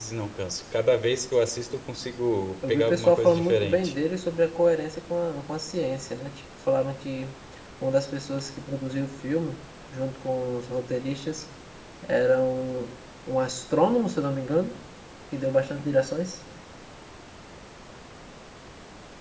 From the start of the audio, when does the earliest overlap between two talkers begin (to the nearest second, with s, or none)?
3 s